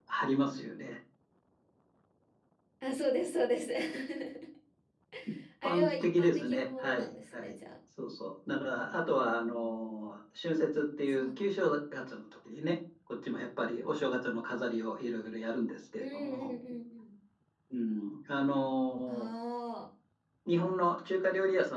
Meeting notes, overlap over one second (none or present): present